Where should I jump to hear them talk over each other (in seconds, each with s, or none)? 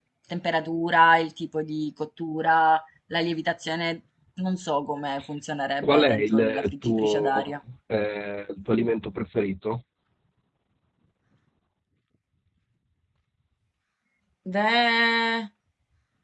5.8 s